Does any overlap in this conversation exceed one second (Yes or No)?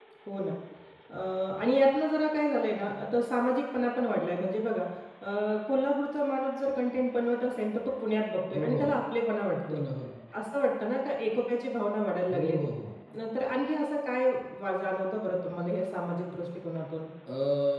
No